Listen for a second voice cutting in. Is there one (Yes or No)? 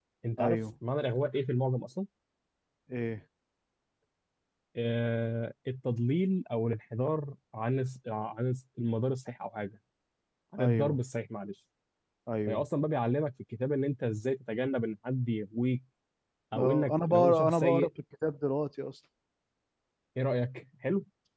Yes